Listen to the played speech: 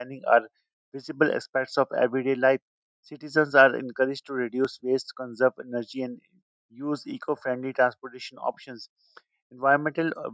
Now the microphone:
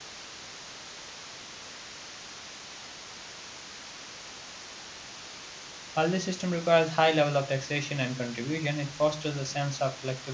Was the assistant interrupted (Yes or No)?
Yes